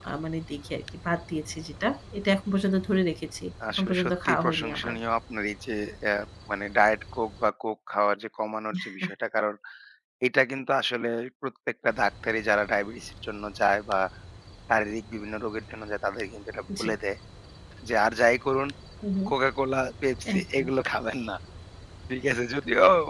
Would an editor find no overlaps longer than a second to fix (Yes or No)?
No